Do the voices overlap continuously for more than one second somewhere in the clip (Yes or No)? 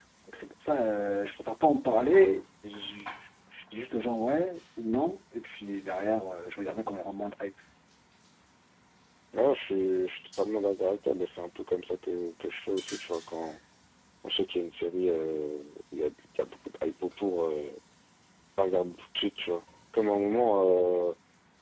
No